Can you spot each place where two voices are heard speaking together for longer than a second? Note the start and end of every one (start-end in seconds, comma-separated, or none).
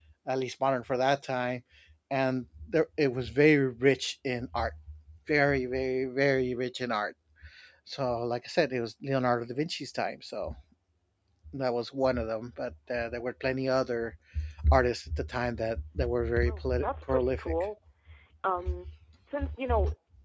16.4-17.7